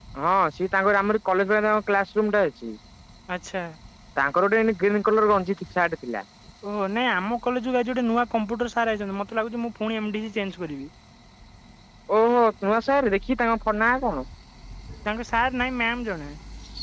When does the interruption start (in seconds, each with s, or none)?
none